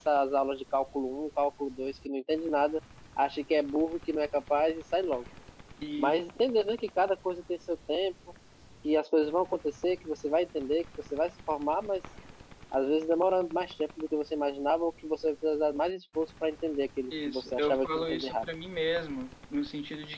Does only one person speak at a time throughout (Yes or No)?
No